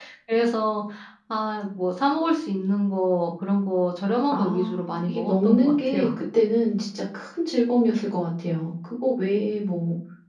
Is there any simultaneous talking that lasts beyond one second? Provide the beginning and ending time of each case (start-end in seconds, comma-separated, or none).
4.3-6.0